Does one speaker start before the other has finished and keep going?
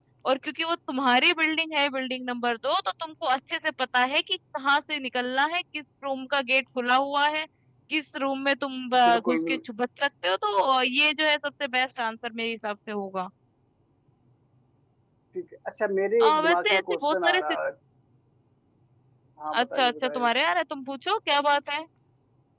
Yes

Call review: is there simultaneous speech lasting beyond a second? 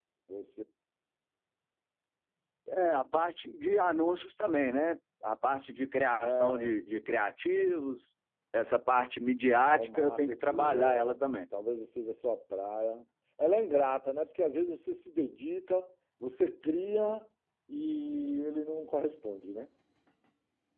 Yes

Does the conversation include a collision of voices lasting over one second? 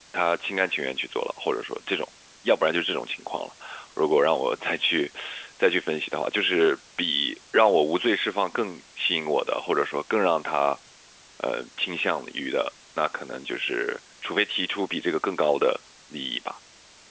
No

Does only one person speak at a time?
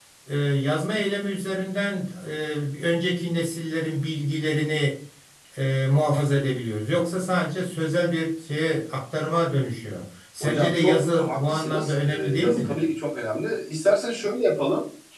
No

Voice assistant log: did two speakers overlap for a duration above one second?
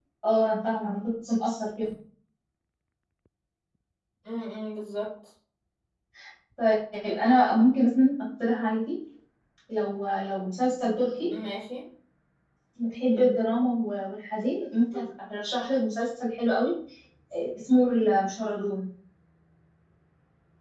No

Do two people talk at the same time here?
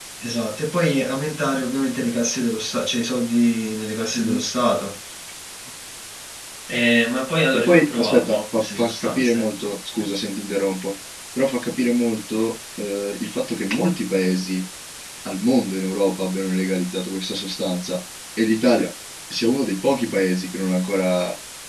Yes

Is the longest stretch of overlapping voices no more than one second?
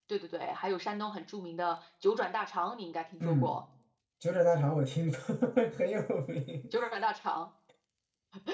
Yes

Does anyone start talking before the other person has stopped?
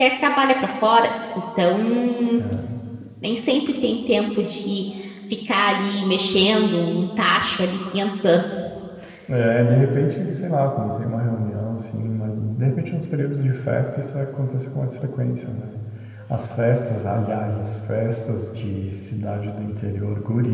No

